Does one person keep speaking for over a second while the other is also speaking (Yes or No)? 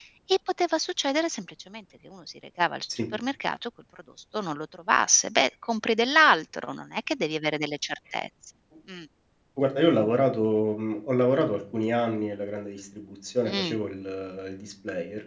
No